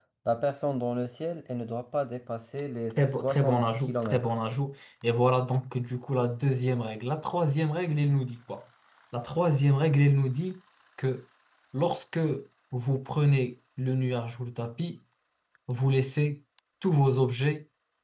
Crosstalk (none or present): present